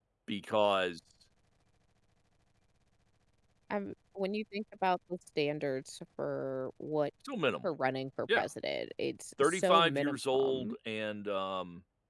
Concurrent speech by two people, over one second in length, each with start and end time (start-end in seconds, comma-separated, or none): 9.4-10.8